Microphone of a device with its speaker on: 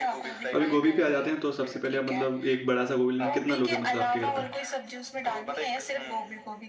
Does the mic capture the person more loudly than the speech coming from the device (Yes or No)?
Yes